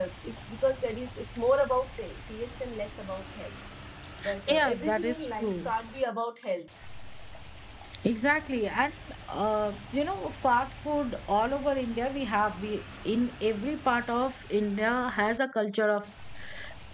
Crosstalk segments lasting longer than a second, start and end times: 4.5-5.7

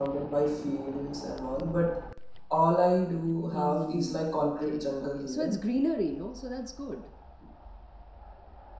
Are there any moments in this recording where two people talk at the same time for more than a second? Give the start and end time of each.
3.5-5.5

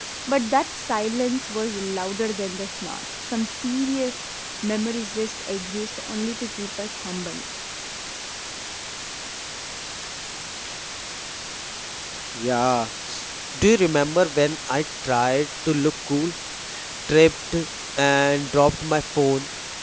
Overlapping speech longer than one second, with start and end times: none

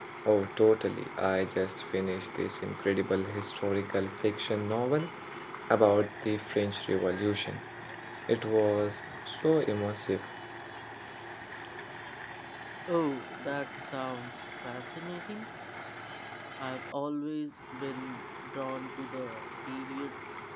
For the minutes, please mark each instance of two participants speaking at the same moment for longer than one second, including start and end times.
none

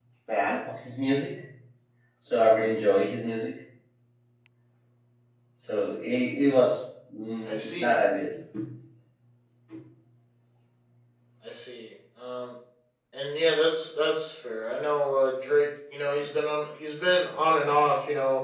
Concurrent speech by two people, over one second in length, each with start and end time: none

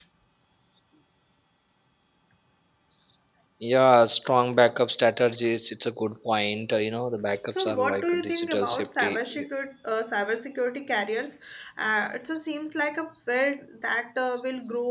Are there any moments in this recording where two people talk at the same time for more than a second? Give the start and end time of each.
7.5-9.4

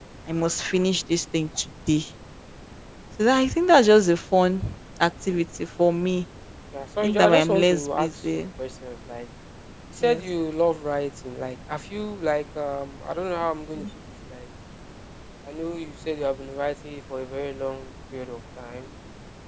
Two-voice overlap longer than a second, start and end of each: 7.0-8.5

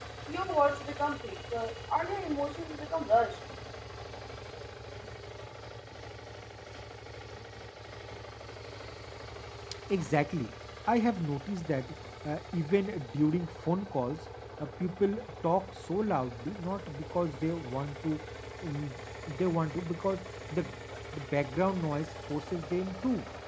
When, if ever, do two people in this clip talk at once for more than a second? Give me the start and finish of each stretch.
none

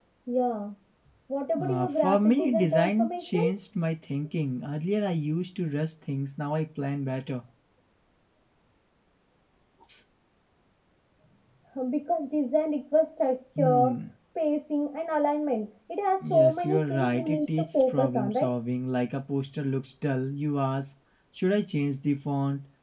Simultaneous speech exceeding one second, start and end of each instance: 1.6-3.4, 16.3-18.5

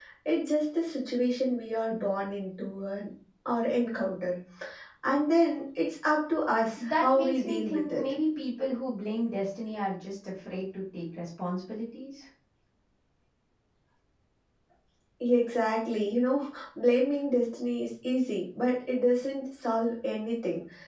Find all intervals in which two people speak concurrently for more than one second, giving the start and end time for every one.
6.8-8.0

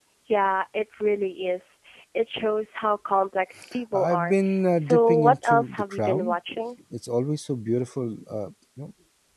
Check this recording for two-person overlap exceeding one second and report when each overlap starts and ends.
3.9-6.3

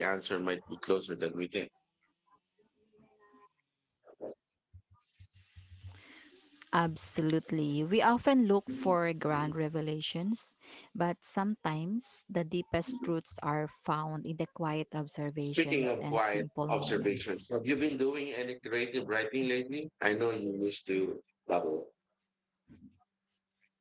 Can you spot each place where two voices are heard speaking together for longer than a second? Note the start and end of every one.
15.4-17.4

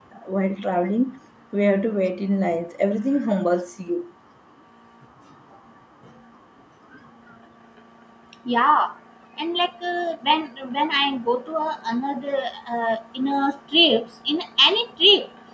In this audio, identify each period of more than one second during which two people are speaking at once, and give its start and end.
none

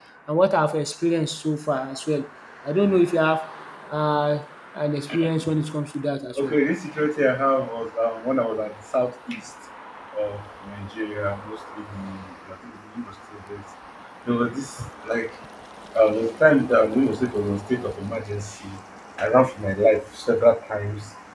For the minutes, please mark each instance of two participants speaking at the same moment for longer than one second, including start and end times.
none

